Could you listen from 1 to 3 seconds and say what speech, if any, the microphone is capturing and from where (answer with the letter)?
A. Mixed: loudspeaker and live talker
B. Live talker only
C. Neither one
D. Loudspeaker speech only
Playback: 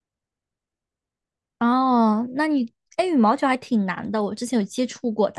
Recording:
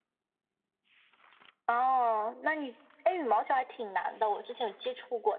D